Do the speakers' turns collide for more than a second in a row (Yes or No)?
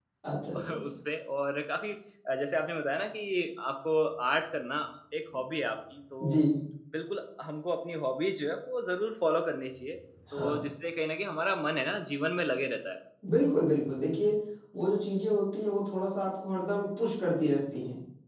No